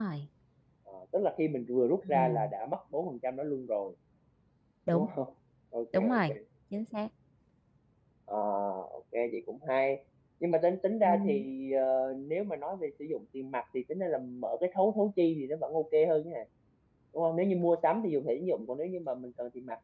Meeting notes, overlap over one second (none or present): none